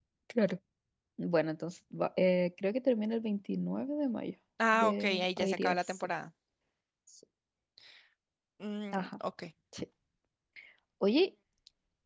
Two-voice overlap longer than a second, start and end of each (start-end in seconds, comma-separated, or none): 4.7-6.0